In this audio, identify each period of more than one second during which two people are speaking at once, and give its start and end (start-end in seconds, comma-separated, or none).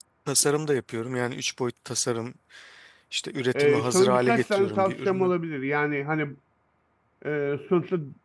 3.6-5.3